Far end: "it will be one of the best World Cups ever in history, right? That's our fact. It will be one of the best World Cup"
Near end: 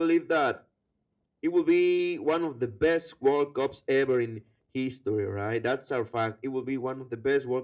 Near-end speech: none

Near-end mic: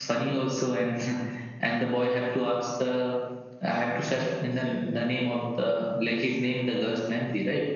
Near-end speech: present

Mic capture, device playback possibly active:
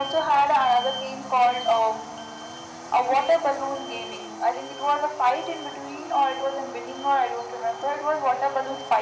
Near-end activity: none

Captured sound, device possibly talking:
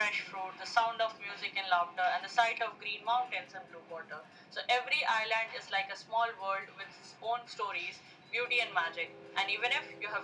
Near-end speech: none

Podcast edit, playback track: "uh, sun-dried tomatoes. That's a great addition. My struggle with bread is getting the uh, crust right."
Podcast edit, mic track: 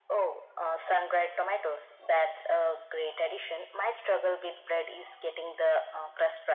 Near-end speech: none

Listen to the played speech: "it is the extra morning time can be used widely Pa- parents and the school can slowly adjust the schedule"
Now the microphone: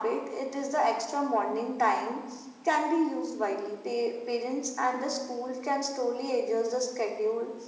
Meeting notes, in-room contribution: none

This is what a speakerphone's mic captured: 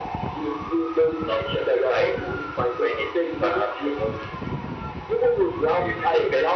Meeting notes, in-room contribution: none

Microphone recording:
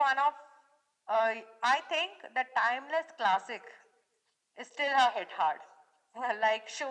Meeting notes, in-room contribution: none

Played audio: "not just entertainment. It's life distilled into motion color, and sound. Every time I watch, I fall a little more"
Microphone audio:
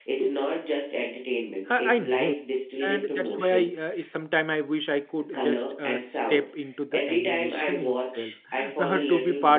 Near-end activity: present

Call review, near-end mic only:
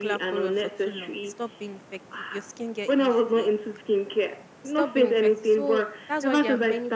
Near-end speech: present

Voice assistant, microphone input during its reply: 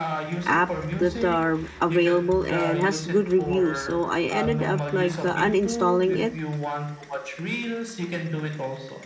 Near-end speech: present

